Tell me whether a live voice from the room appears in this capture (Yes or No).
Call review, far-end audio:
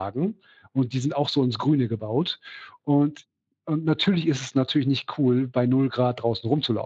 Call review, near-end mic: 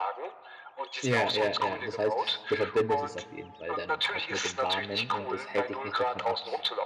Yes